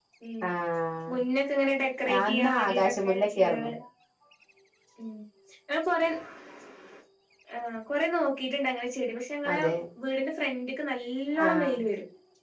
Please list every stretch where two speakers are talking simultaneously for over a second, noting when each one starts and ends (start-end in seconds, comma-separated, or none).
2.2-3.7